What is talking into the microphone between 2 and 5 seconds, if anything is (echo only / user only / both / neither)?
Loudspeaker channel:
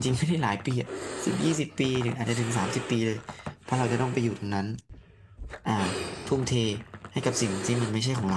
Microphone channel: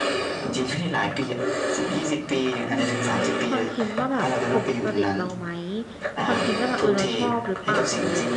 both